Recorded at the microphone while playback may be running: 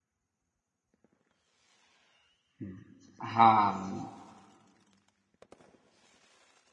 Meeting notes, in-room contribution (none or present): present